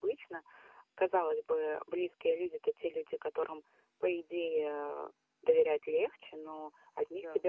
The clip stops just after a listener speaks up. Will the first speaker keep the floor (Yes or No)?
Yes